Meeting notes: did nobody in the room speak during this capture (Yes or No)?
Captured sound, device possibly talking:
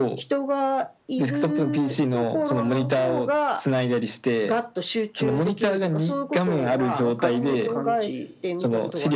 No